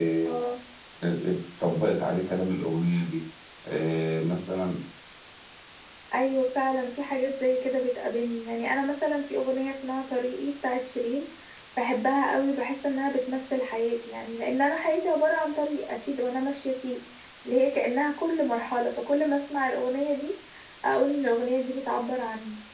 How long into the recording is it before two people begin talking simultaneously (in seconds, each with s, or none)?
none